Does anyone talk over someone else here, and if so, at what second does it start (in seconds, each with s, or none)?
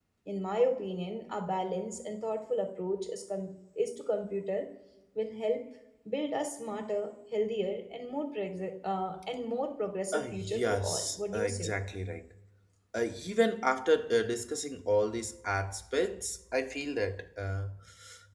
10.1 s